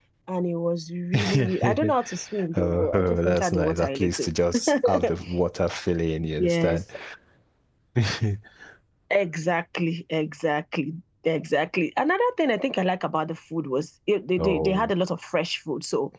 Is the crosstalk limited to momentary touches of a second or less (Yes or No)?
No